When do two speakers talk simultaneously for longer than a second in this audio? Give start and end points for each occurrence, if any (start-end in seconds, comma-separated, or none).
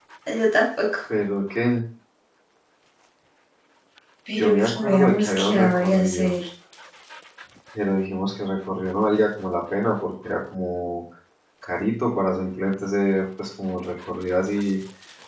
4.4-6.4